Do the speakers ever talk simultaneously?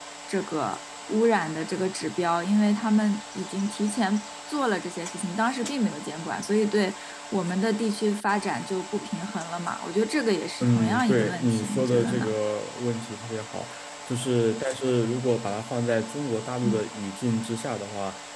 Yes, from 10.6 s

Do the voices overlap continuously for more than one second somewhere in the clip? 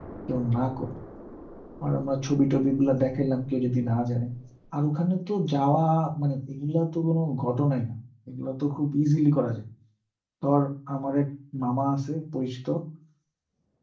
No

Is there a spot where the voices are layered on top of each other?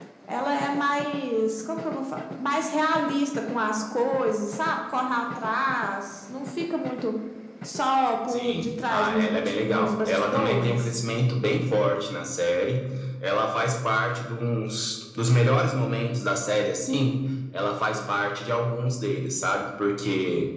Yes, from 8.3 s

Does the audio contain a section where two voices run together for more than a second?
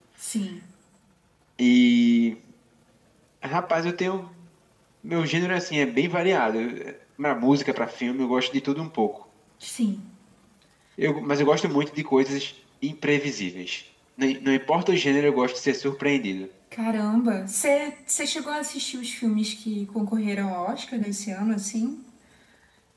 No

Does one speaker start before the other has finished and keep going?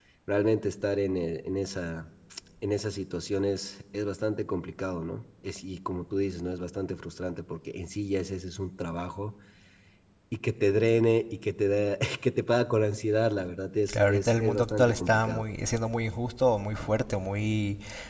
Yes, from 13.9 s

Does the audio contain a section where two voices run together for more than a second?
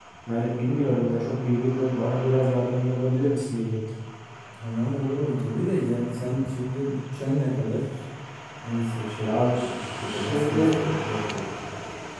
Yes, from 9.2 s

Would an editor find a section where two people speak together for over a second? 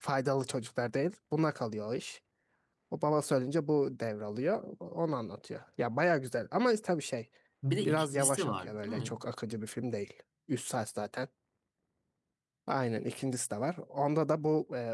Yes, from 7.8 s

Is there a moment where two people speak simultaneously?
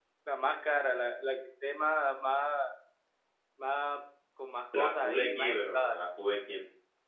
Yes, from 4.7 s

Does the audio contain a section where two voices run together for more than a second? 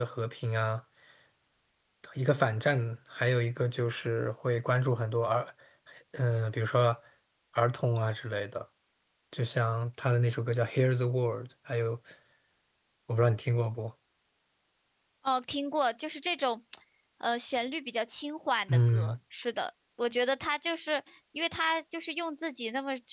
No

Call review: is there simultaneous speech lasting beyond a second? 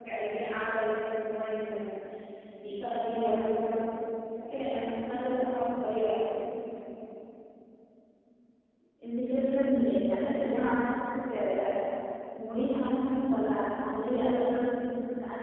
No

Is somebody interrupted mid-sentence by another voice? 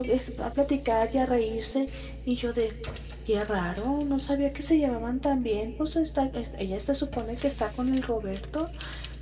No

